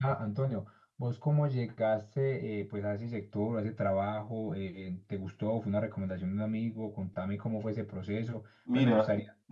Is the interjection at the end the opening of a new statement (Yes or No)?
Yes